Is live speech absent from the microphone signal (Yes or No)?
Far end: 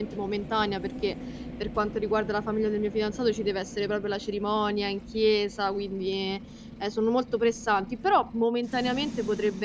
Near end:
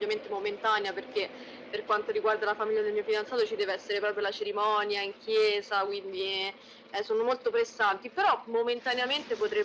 Yes